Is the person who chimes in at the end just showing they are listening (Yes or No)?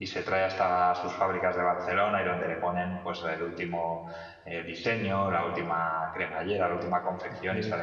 Yes